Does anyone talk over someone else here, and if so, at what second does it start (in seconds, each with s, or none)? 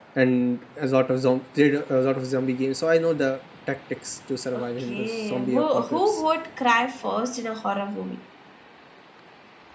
4.5 s